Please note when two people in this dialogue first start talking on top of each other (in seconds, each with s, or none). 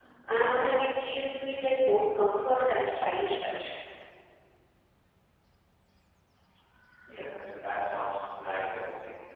none